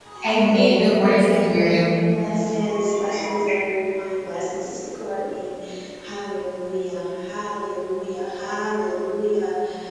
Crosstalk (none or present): present